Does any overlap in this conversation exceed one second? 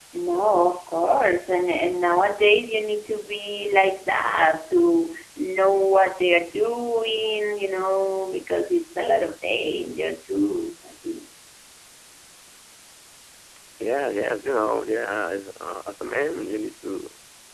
No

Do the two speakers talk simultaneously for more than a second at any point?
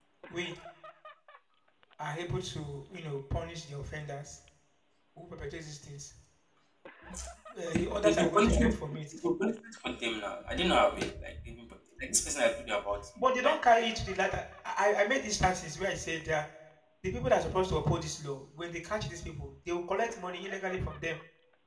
Yes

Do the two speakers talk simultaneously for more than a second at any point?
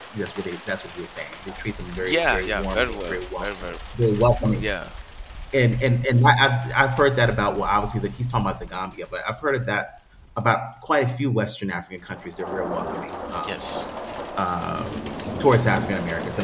Yes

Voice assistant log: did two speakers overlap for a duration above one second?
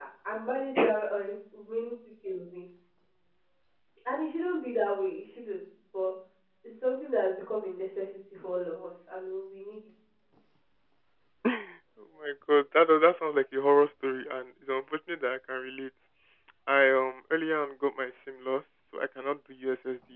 No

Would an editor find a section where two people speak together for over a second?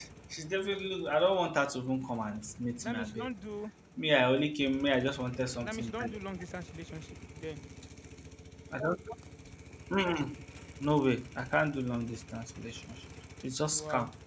No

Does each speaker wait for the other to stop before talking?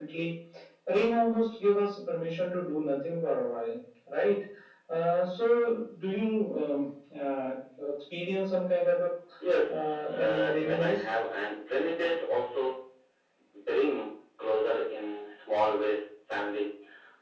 No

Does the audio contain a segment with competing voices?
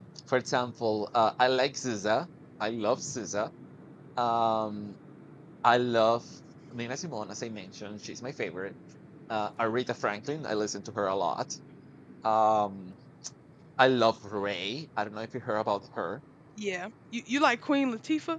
No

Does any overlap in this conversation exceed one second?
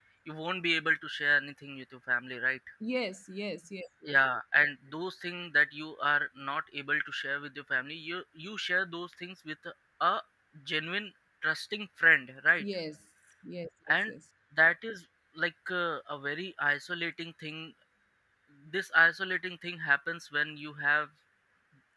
No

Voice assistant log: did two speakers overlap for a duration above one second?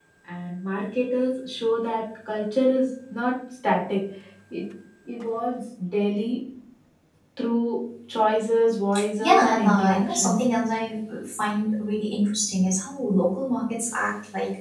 Yes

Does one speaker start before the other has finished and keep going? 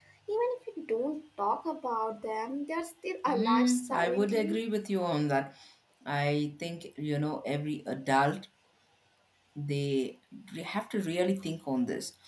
Yes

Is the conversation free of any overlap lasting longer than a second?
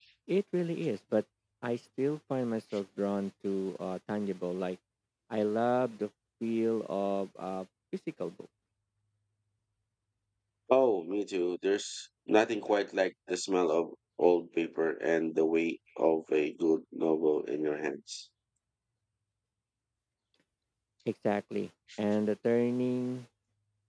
Yes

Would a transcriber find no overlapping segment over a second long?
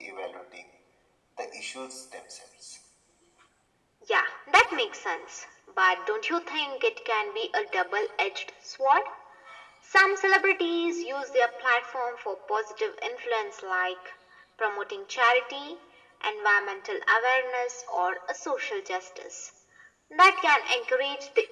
Yes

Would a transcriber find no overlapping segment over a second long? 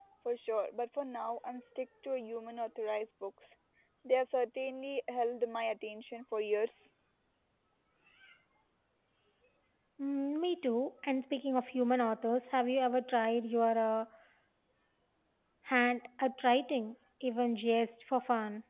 Yes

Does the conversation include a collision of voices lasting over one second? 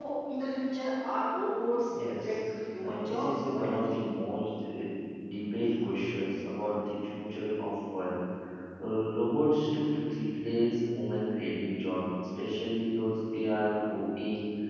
Yes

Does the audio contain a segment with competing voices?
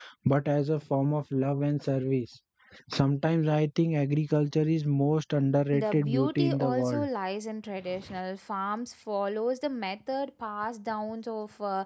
Yes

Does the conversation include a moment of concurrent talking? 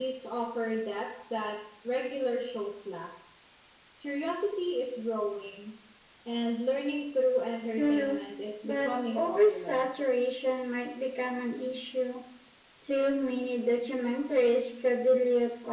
Yes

